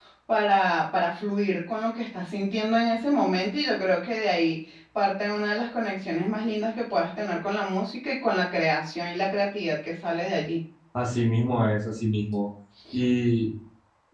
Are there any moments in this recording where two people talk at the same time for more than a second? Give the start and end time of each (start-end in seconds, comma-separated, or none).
none